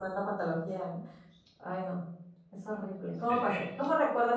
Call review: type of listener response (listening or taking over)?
listening